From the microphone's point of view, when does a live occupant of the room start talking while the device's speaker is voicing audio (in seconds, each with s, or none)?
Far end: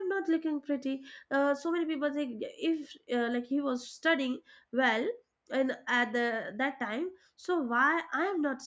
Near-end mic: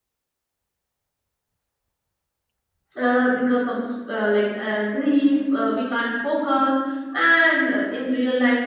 3.0 s